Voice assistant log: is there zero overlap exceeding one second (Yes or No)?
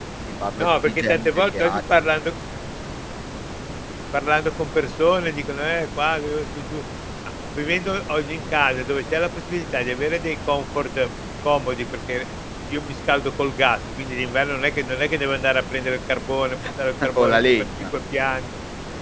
No